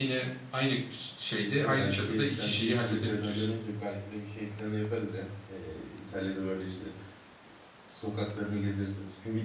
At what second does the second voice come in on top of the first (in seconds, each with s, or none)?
1.5 s